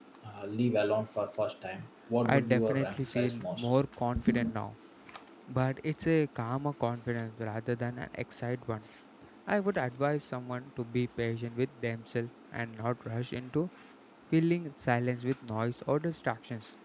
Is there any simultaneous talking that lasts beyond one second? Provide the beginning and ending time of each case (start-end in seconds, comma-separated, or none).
2.3-3.7